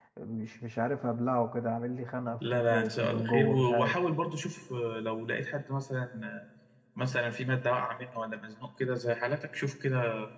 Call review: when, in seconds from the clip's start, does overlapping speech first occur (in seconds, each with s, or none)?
2.4 s